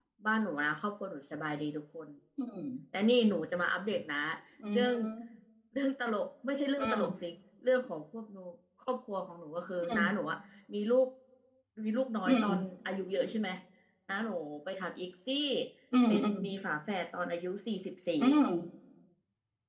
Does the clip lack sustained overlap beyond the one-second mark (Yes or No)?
Yes